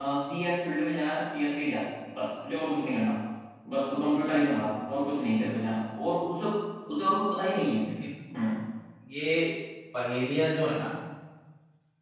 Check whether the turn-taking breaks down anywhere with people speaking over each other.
No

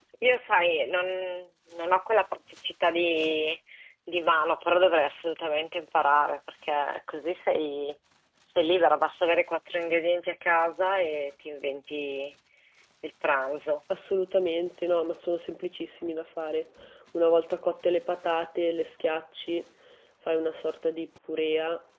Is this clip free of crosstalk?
Yes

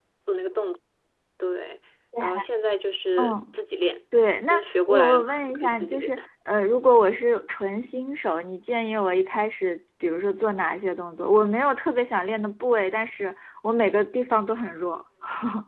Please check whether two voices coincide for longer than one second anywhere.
Yes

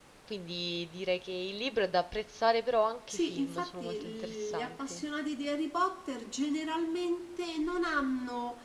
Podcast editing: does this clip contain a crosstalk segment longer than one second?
Yes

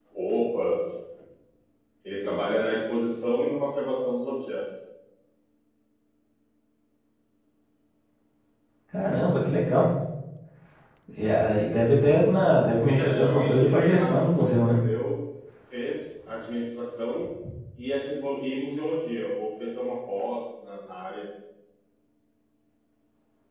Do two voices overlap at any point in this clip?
Yes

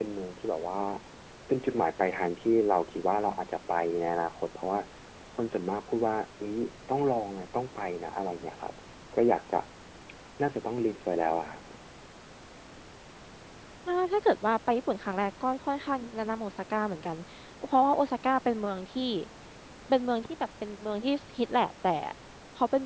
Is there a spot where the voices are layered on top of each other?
No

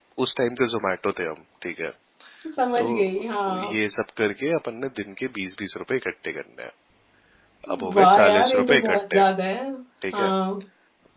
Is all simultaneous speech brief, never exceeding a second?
No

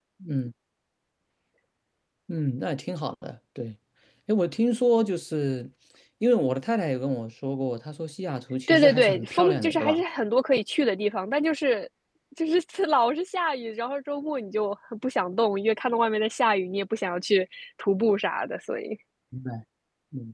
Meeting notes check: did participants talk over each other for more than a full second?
Yes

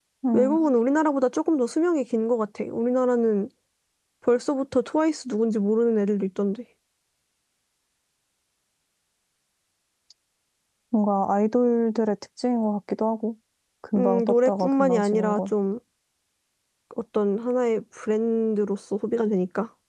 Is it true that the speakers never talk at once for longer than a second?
No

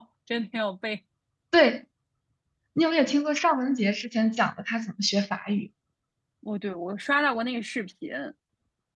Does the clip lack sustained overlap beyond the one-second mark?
Yes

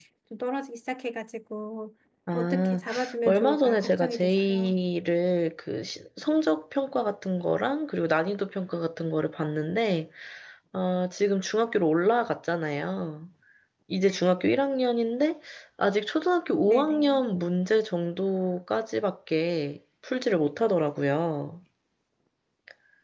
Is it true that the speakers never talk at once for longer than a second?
No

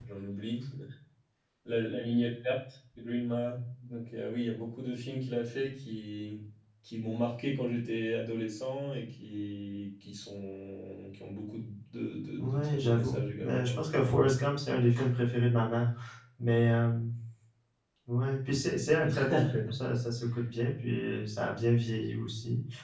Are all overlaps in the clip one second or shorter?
No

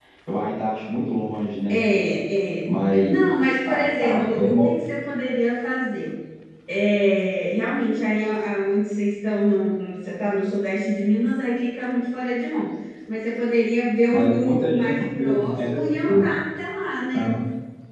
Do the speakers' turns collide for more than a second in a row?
Yes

